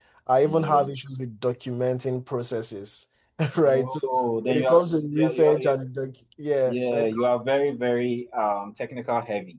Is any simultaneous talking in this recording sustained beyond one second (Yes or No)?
Yes